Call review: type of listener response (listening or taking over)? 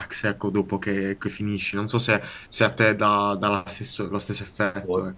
taking over